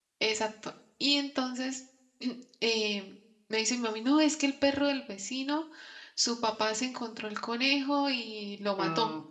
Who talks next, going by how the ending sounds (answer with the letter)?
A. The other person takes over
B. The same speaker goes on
B